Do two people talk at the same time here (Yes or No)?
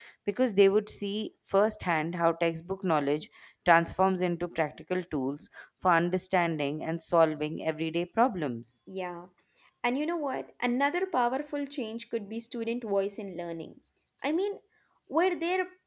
No